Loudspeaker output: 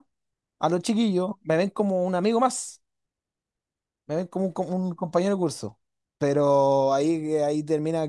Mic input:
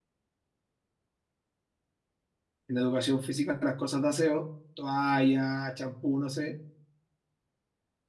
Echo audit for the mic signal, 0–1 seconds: neither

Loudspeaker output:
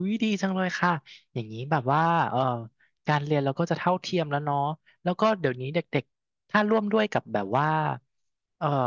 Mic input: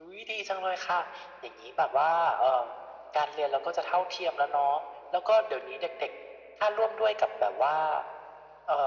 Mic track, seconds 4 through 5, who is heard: echo only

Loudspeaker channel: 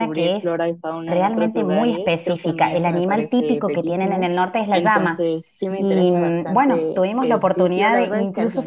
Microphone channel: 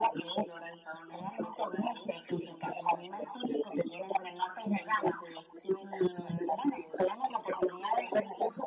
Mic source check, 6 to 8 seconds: echo only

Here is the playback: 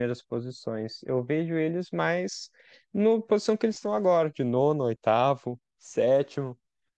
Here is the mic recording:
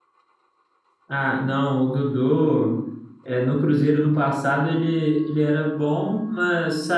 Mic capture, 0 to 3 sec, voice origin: user only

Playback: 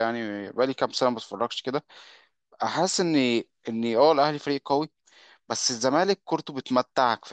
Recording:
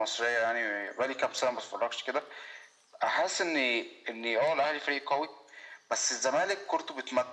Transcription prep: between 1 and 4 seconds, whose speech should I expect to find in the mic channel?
echo only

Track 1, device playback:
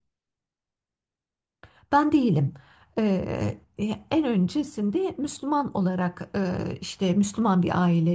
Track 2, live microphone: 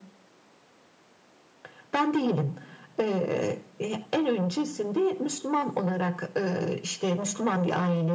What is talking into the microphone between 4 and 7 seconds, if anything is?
echo only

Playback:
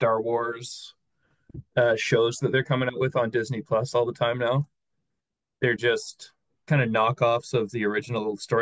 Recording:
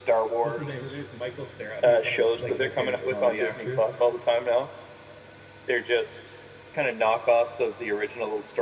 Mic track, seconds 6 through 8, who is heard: echo only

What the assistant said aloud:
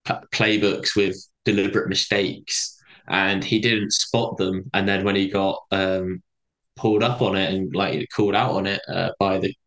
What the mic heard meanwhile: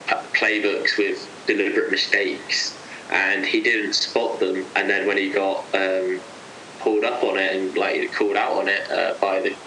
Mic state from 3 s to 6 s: echo only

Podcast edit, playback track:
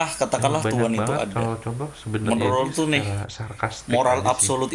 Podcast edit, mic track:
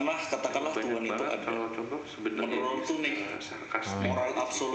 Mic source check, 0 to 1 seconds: echo only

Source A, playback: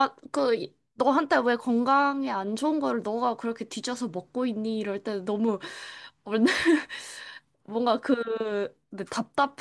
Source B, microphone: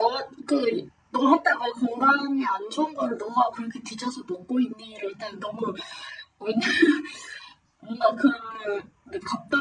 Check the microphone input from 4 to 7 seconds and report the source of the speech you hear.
echo only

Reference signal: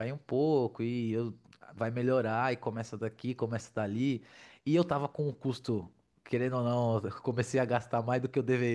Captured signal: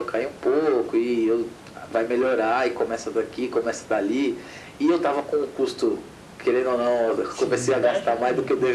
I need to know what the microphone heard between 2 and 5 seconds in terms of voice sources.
echo only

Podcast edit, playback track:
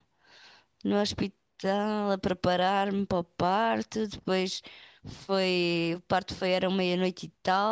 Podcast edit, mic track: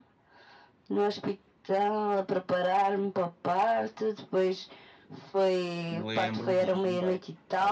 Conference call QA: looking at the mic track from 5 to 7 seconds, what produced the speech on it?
both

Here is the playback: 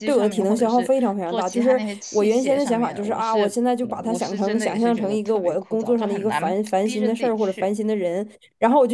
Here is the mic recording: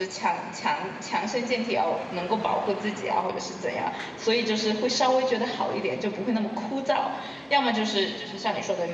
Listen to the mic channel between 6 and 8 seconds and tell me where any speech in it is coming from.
user only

